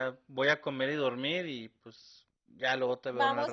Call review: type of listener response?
taking over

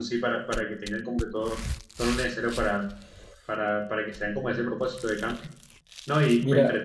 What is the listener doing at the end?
listening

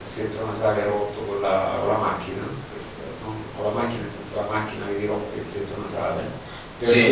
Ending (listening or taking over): listening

